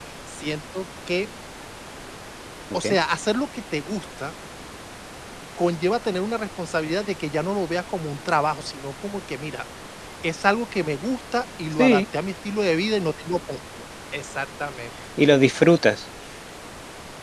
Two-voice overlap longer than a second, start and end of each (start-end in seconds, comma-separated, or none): none